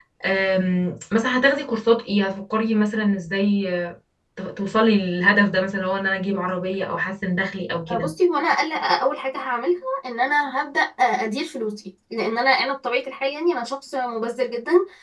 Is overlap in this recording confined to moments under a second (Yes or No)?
Yes